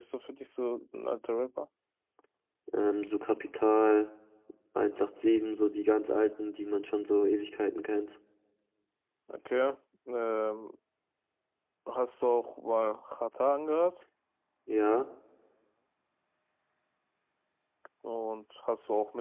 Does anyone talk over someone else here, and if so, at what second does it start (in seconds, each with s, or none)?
none